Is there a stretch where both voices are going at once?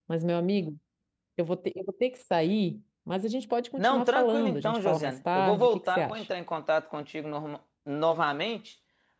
Yes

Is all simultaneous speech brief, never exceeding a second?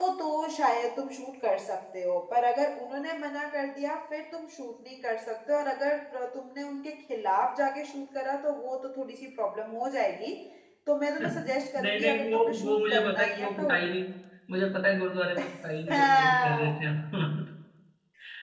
No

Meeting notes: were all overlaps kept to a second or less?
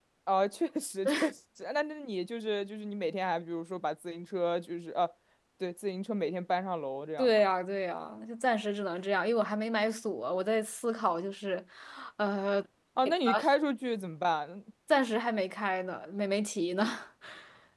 Yes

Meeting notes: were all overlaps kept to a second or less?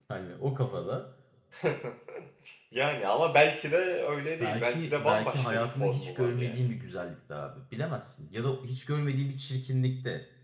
No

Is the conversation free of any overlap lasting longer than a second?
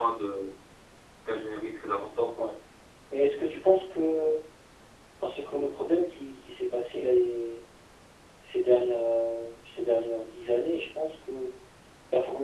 Yes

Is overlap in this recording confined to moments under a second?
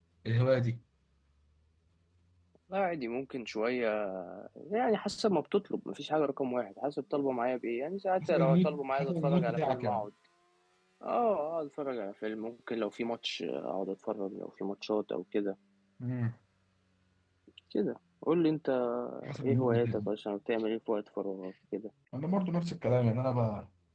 No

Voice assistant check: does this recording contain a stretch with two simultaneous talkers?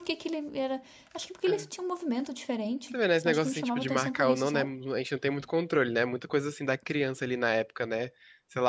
Yes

